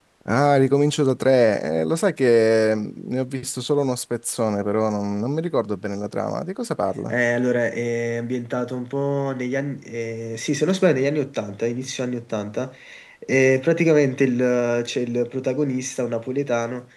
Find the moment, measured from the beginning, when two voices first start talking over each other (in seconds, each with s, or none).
none